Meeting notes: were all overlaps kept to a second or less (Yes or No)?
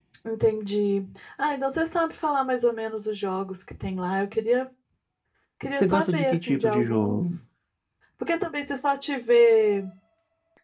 No